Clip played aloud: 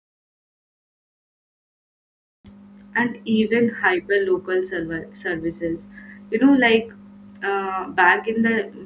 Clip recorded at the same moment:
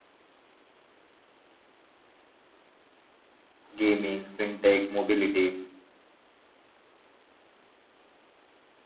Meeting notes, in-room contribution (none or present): present